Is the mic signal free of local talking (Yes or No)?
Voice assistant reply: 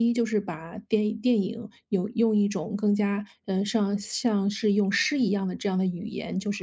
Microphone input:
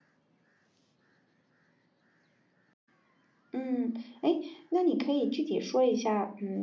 No